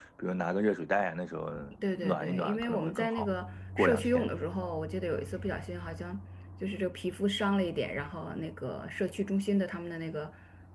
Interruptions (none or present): present